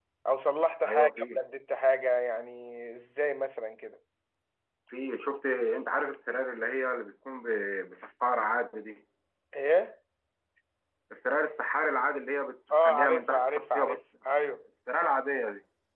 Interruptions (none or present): present